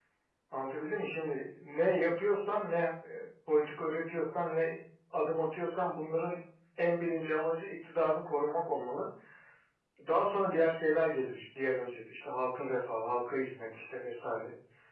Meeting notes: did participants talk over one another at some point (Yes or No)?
No